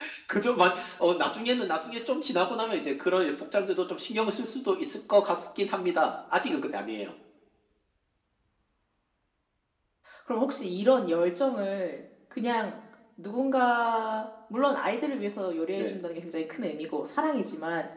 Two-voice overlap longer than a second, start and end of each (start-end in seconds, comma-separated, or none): none